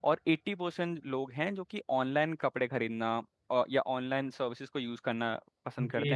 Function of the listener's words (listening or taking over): taking over